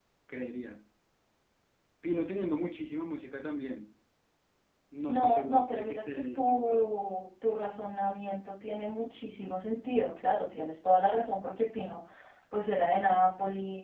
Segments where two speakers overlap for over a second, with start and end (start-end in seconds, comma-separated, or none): 5.1-6.9